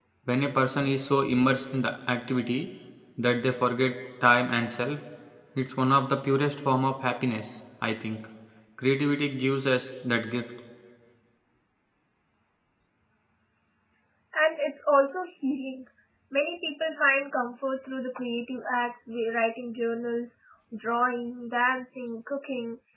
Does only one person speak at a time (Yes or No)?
Yes